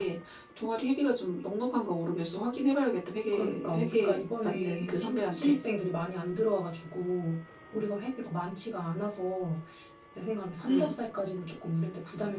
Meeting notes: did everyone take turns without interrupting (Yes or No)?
No